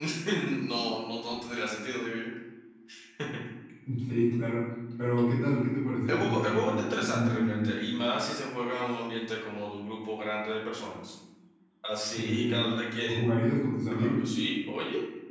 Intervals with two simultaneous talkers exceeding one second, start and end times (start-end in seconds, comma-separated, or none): 6.1-7.7